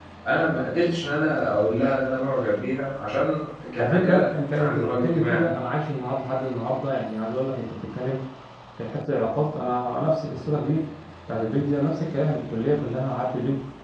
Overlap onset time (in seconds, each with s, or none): 3.8 s